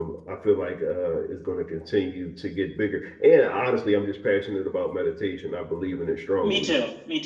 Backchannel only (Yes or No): No